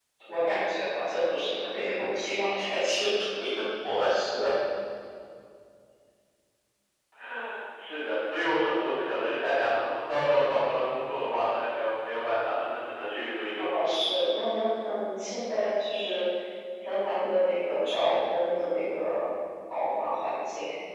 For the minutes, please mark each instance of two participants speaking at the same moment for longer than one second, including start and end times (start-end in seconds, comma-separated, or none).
none